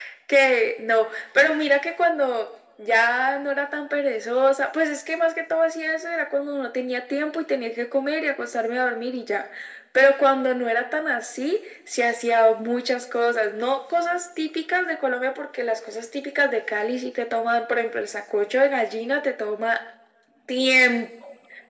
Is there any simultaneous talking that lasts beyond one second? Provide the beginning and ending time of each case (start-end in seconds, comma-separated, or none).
none